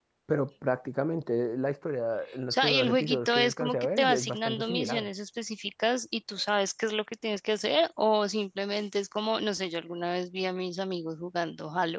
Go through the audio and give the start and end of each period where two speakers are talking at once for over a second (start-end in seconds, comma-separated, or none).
2.5-5.1